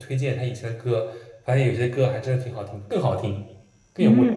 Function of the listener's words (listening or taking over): taking over